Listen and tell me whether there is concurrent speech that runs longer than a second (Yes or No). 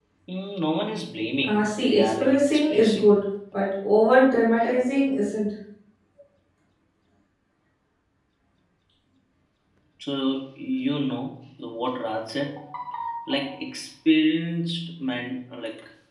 Yes